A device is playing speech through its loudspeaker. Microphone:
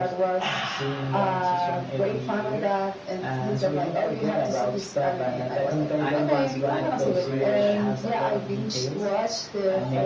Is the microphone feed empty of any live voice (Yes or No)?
No